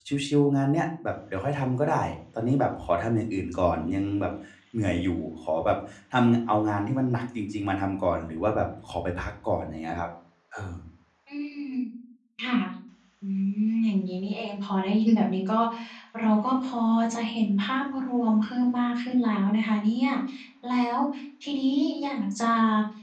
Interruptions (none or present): none